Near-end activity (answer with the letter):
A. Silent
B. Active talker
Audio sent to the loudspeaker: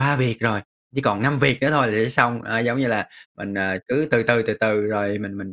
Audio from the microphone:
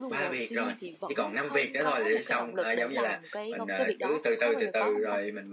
B